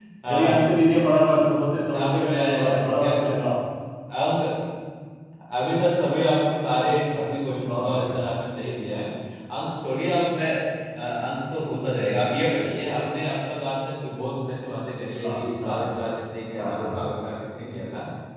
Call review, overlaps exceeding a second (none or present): present